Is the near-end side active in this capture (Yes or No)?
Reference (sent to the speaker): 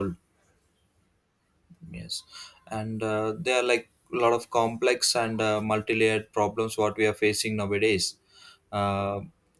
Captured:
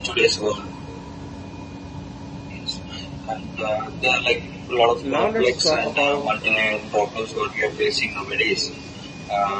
Yes